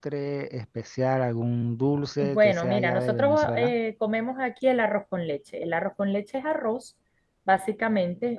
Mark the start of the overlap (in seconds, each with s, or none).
2.2 s